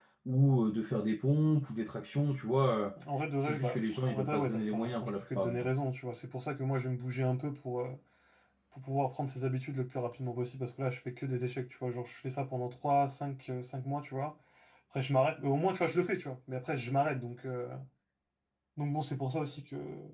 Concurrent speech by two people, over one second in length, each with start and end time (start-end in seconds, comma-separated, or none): 3.4-5.7